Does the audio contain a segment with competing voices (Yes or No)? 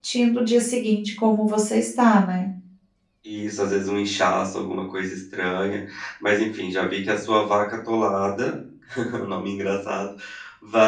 No